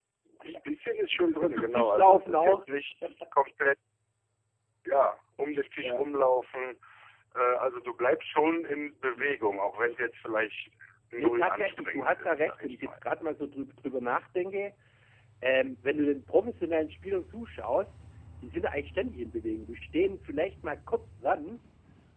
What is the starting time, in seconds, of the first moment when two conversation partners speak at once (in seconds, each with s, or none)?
1.4 s